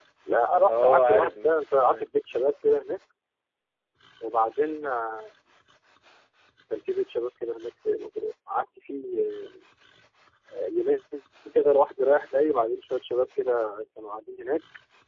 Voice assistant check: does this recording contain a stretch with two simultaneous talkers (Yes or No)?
Yes